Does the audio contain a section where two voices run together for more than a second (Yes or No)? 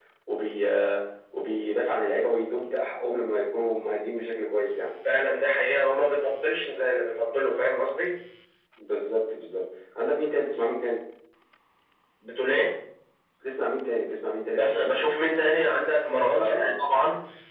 No